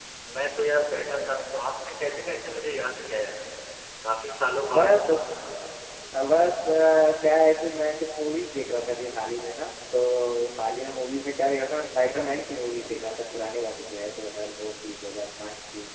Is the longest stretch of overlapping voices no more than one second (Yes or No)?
Yes